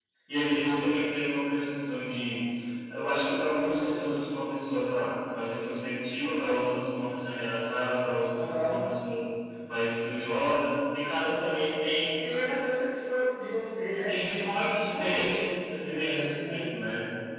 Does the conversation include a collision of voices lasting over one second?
Yes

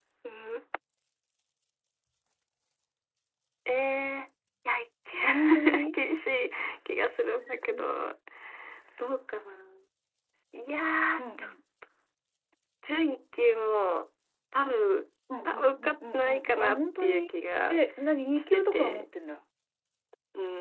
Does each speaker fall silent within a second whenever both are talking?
No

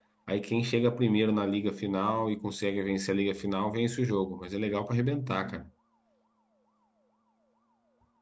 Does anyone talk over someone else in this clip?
No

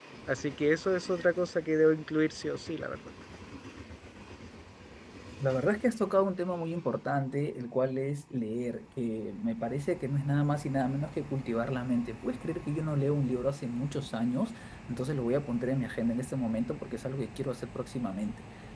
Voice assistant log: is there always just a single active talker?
Yes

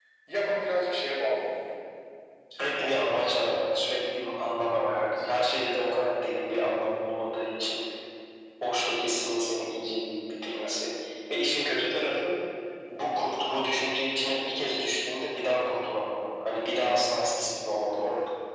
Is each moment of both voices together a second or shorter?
Yes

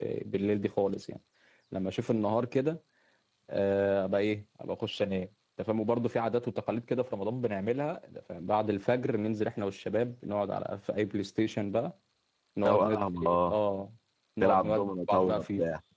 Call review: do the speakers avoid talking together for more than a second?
No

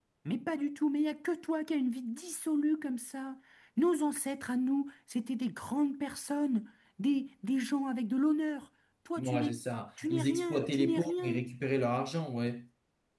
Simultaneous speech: Yes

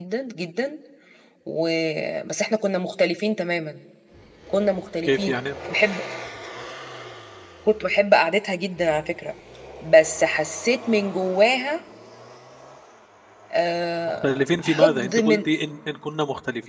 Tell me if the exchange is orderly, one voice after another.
No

